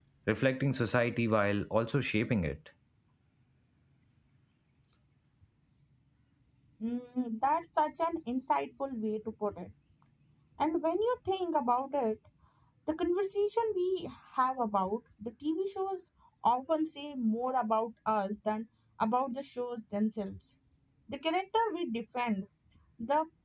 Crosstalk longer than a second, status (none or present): none